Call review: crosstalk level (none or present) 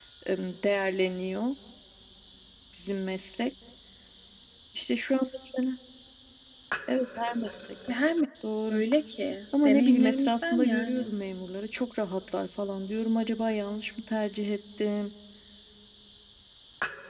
present